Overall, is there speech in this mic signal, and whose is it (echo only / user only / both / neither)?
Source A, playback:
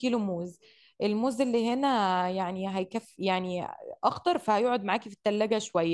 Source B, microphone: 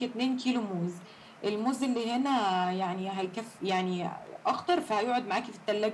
echo only